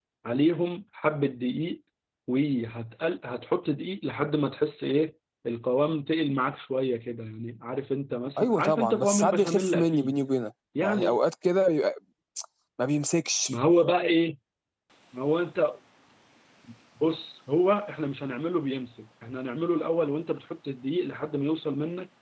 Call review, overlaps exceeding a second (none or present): present